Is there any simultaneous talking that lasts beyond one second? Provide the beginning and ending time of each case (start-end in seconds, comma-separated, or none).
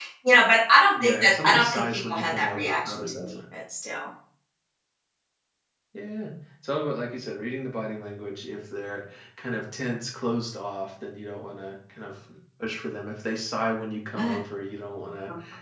1.0-3.4